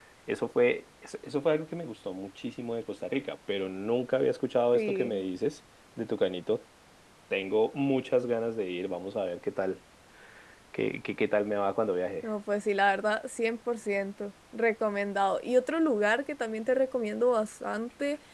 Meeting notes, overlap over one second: none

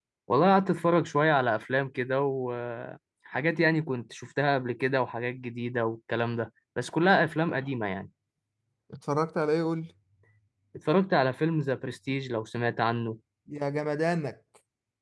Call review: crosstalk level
none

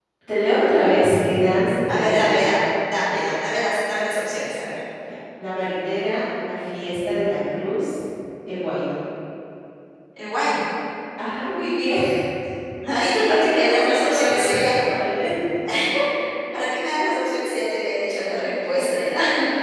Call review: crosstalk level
present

